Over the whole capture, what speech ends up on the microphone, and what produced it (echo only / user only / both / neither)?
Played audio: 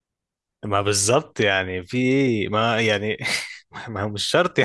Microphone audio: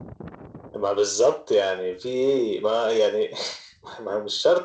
echo only